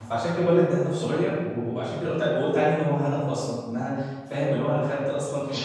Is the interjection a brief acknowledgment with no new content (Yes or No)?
Yes